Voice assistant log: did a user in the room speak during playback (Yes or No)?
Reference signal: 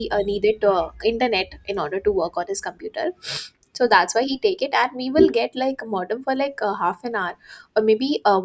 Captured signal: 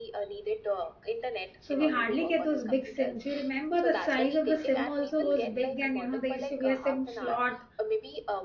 Yes